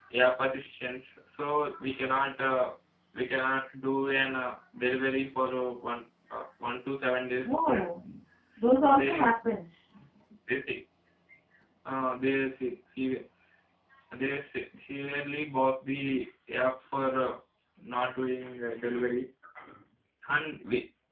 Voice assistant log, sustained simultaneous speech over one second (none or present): none